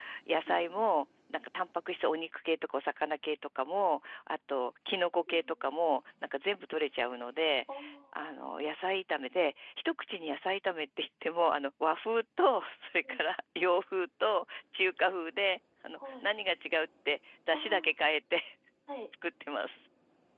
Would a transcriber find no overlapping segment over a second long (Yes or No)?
Yes